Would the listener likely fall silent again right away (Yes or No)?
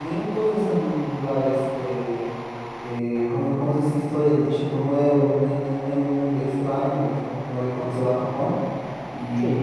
Yes